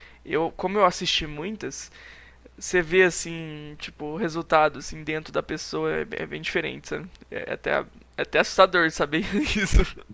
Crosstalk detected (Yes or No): No